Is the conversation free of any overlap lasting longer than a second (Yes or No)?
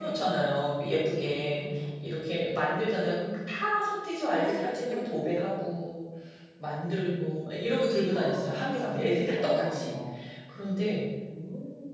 No